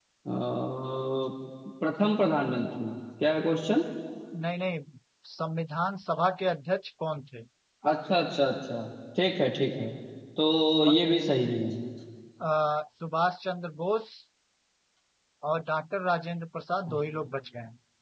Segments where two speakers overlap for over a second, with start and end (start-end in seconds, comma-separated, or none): none